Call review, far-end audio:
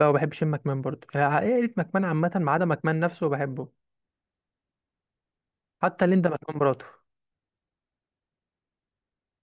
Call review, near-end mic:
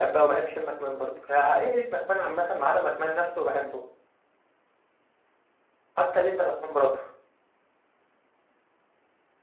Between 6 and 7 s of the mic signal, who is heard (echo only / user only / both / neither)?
echo only